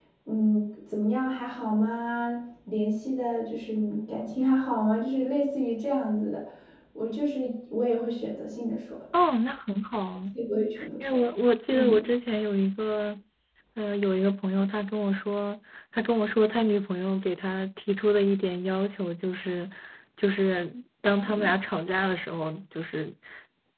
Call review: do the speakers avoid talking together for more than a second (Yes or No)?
Yes